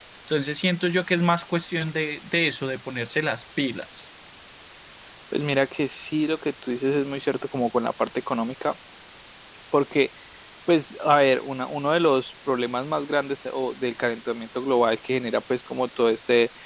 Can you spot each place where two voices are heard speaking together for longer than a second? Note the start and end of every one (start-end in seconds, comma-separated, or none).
none